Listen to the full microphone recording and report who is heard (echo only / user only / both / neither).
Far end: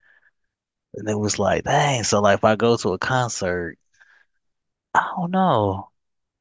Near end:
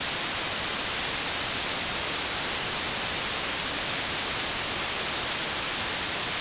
neither